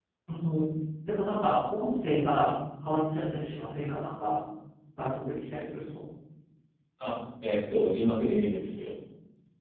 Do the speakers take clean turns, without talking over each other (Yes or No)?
Yes